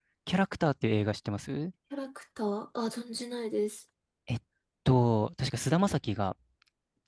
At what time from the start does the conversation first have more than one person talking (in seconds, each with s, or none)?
none